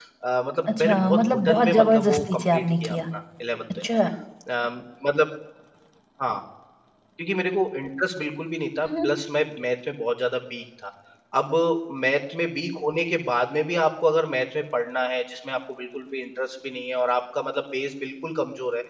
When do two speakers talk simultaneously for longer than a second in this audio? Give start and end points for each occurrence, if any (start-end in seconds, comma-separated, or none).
0.7-3.0